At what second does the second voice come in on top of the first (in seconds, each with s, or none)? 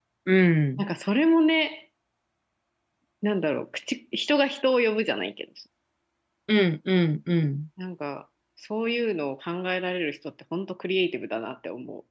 none